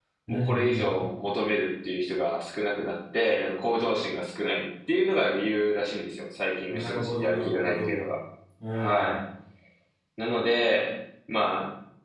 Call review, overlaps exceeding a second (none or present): present